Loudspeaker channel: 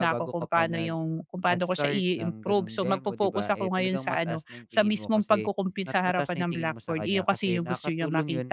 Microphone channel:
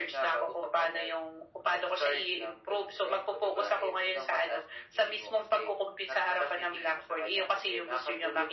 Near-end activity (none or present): none